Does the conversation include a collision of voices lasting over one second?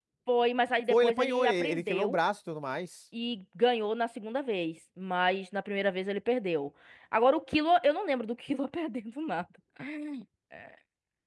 Yes, from 0.9 s

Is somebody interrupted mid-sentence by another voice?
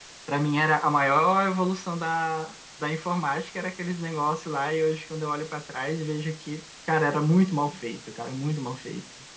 No

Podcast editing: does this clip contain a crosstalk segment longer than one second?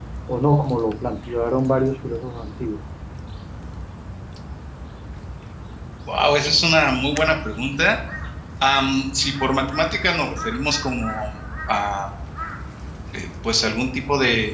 No

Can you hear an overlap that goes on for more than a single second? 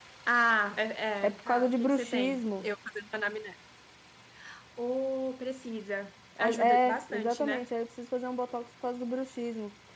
Yes, from 1.3 s

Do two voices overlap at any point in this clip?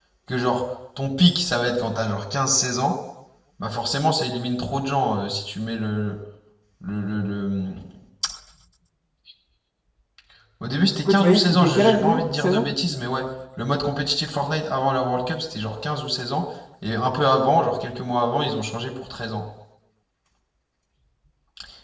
Yes, from 11.1 s

